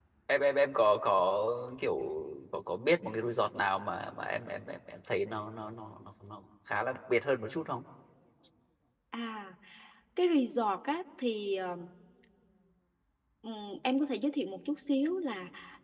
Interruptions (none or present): none